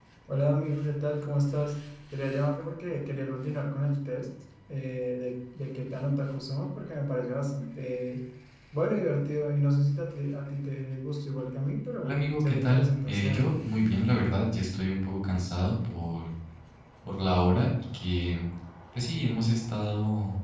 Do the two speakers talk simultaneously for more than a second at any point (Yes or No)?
Yes